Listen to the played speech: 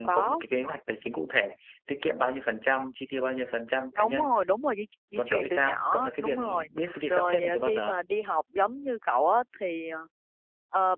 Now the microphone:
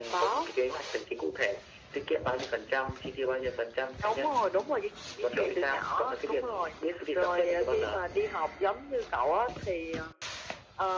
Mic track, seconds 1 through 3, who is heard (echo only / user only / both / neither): echo only